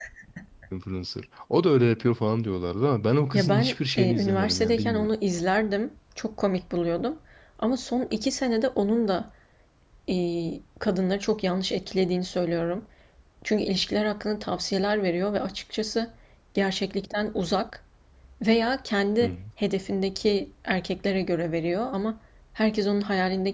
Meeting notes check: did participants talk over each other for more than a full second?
Yes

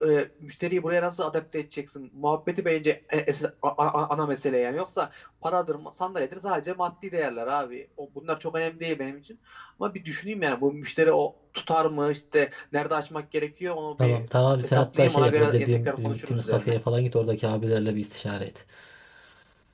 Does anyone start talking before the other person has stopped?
Yes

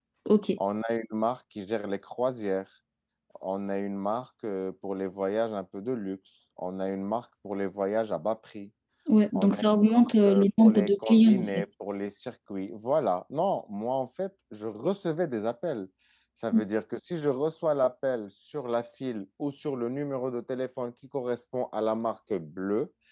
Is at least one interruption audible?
Yes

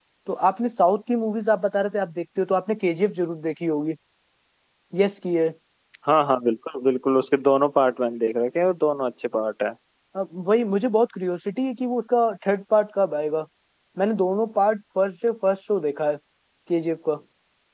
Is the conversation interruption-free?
Yes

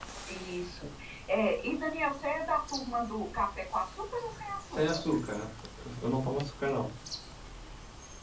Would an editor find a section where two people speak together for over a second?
No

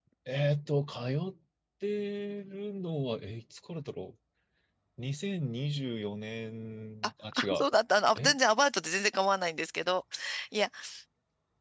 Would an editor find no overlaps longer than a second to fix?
Yes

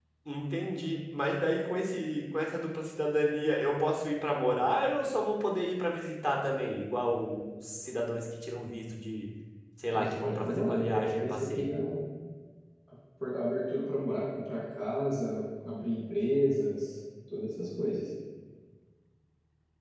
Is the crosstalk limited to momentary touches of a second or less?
No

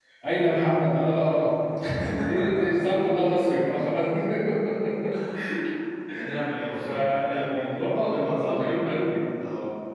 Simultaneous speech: Yes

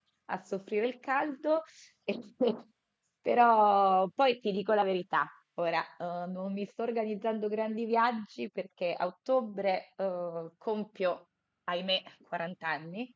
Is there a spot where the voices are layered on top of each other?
No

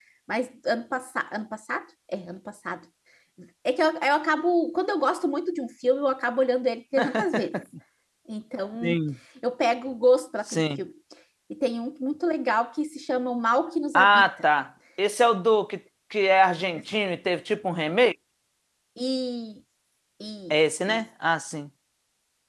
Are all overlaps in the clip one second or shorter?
Yes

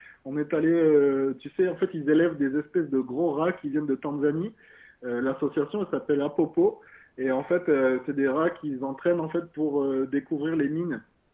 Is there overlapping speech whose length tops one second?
No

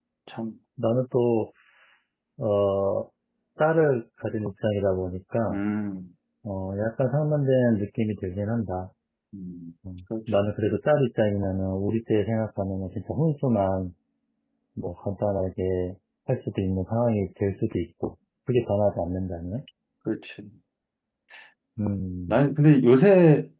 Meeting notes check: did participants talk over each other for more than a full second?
No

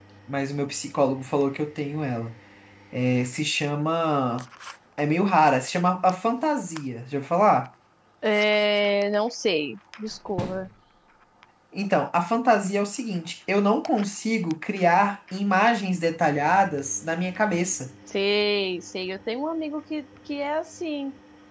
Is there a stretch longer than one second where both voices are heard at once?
No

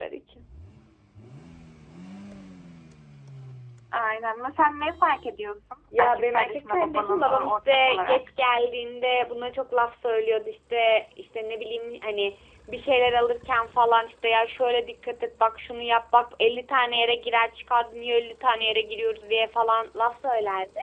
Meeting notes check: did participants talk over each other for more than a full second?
Yes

